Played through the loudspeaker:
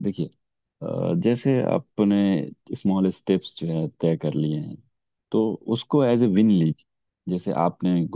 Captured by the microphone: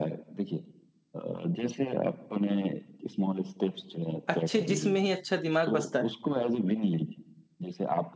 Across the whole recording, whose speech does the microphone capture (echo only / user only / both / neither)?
both